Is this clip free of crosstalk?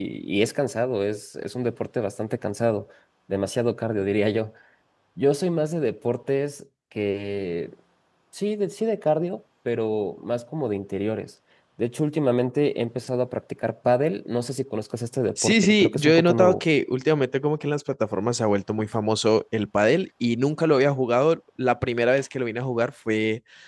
No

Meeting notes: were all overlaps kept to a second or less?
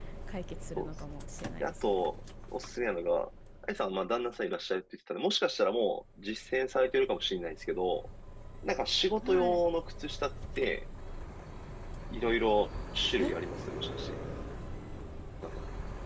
Yes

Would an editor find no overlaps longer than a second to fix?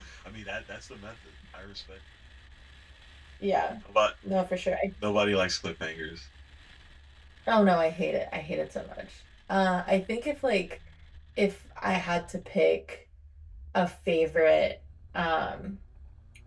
Yes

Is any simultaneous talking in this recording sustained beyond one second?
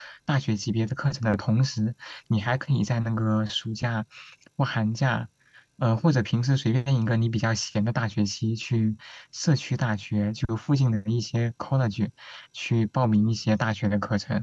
No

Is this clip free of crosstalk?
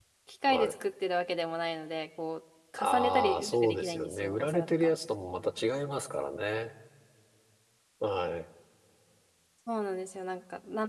No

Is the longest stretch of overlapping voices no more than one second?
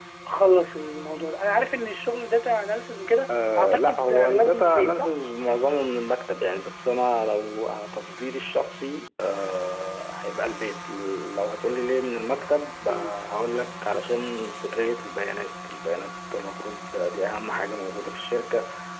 No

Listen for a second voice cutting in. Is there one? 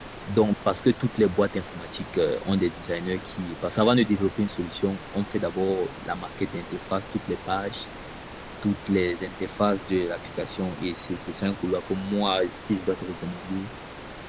No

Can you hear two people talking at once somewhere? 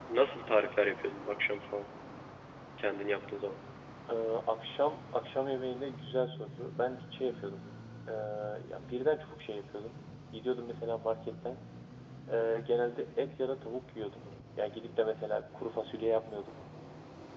No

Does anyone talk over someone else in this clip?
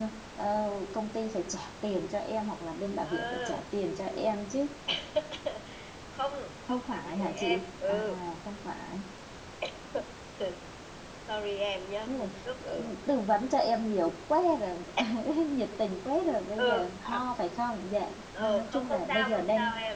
Yes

